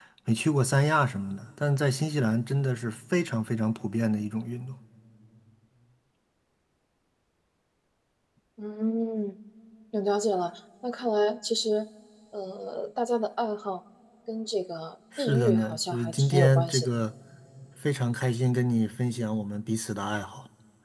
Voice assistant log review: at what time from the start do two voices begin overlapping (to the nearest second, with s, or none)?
15 s